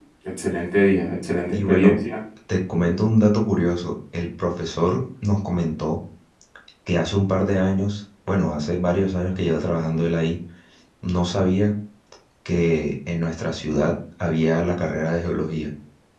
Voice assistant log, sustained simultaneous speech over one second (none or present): none